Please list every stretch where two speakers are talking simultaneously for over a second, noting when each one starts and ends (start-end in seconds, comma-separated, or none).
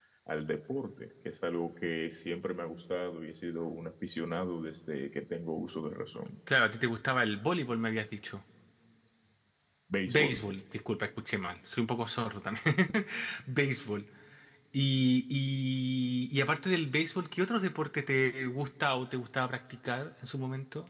none